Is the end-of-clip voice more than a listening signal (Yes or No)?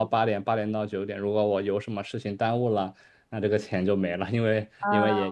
No